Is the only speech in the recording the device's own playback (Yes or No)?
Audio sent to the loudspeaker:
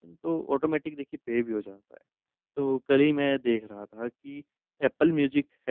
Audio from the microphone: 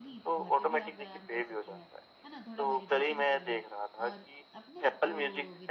No